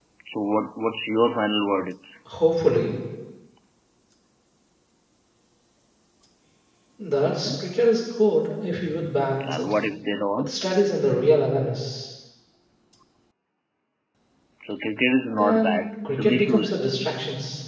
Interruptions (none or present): present